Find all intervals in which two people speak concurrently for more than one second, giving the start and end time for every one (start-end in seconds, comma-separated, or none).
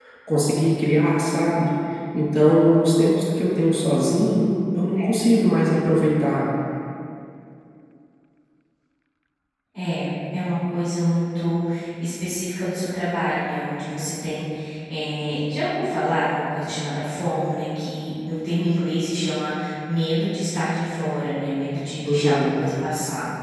none